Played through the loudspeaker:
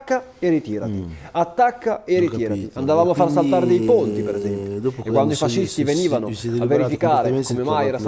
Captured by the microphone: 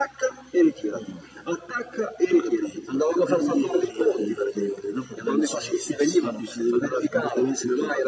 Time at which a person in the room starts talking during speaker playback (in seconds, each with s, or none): none